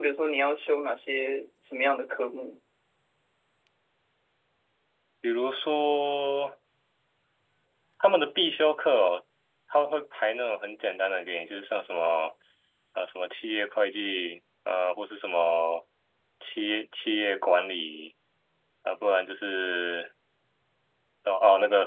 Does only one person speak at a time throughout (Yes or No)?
Yes